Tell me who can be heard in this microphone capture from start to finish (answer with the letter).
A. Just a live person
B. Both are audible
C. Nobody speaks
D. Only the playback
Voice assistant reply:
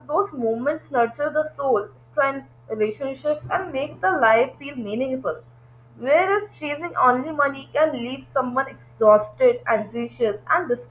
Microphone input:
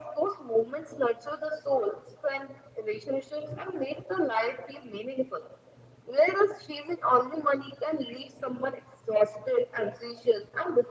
D